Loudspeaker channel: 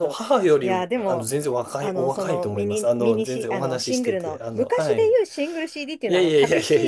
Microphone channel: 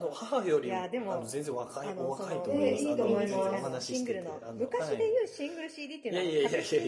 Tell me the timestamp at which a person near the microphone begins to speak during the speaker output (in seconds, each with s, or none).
2.4 s